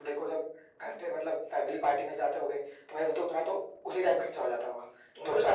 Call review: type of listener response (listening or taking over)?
taking over